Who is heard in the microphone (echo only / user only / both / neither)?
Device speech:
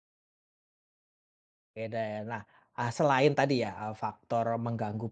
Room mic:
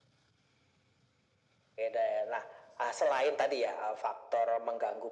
echo only